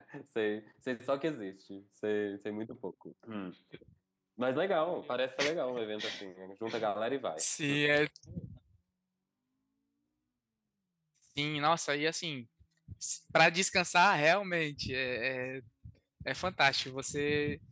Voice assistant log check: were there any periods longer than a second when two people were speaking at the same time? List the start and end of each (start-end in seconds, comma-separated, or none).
none